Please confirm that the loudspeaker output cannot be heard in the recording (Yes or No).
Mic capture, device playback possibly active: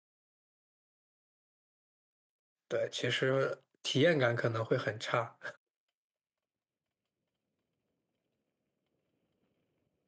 Yes